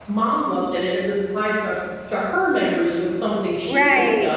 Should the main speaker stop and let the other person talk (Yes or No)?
No